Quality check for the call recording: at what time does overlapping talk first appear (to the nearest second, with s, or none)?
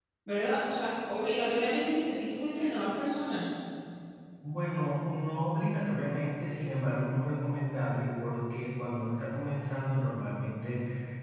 none